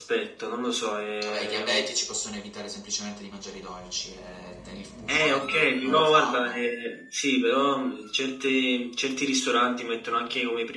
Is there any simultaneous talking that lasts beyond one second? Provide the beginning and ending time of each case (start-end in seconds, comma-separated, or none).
5.1-6.6